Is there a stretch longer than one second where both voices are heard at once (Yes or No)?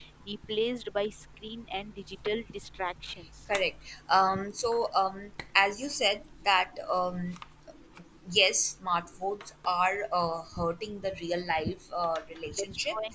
No